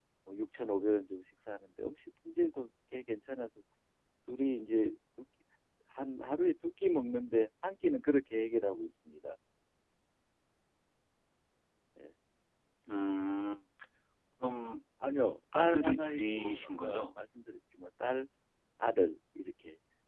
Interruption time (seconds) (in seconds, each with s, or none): 15.6 s